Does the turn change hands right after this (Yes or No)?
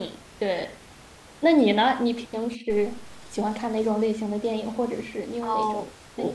Yes